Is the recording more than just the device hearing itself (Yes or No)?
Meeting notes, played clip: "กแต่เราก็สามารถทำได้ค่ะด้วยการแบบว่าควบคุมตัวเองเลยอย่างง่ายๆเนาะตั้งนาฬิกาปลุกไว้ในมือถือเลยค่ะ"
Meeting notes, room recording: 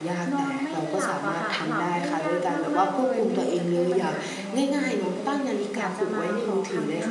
Yes